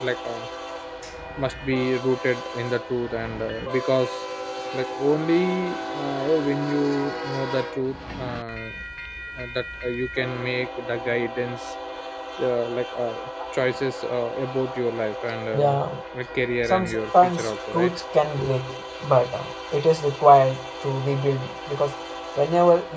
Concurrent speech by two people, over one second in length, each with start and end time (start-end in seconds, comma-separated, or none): 16.7-18.0